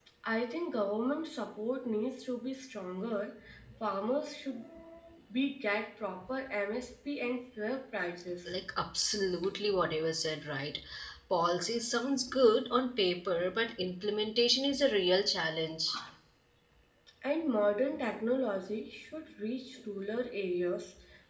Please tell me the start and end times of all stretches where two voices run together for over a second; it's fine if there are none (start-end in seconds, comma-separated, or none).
none